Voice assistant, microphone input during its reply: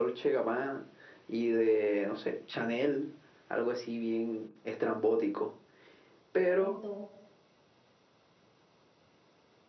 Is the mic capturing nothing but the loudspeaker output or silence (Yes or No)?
No